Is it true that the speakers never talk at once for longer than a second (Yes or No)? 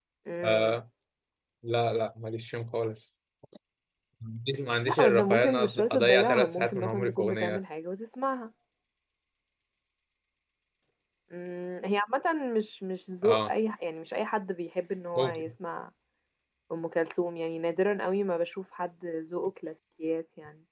No